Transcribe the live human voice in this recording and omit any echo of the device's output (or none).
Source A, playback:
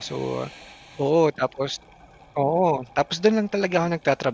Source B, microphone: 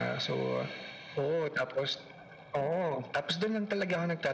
none